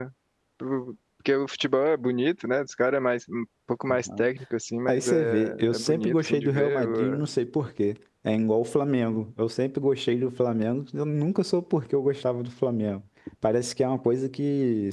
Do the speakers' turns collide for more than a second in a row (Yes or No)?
Yes